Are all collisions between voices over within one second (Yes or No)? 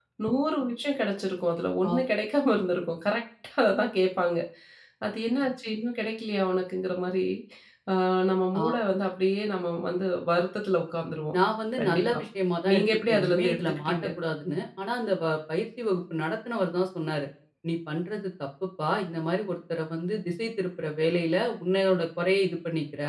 No